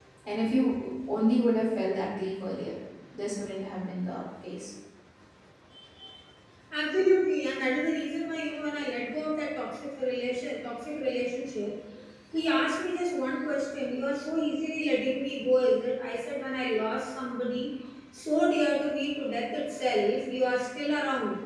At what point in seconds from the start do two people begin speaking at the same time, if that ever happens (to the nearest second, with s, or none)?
none